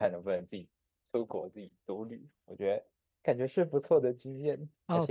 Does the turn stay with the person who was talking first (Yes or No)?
No